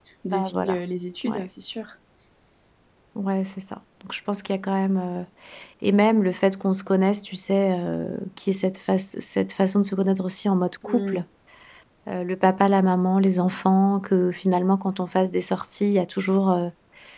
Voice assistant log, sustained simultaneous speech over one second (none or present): none